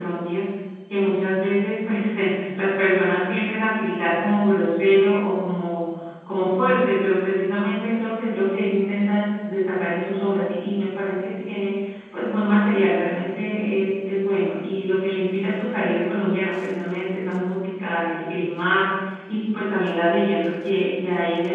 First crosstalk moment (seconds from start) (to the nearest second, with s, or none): none